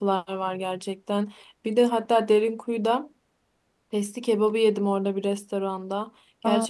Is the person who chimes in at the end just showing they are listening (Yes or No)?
Yes